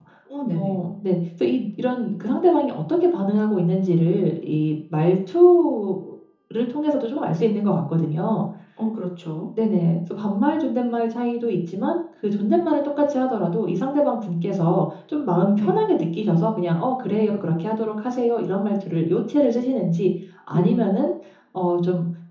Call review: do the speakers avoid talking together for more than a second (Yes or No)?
Yes